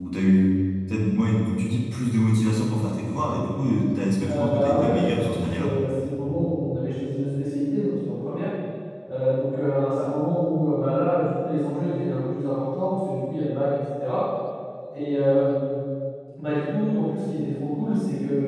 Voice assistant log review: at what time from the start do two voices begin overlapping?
4.2 s

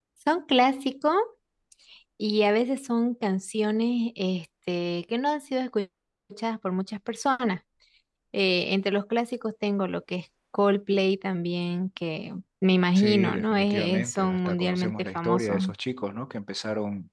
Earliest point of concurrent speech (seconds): 13.0 s

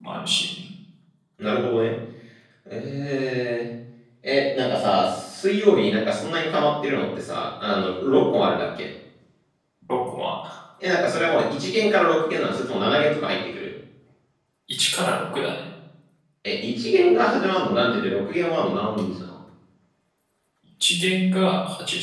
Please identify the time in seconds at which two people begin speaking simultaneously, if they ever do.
none

